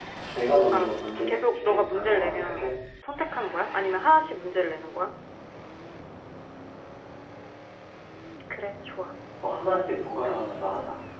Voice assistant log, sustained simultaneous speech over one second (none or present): present